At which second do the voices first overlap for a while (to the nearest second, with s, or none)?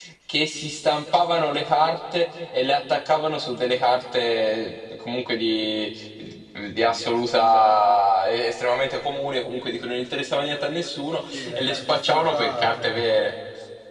11 s